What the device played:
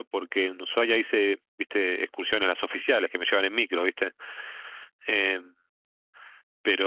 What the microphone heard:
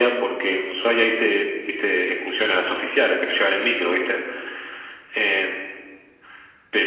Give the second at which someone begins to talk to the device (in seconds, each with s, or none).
none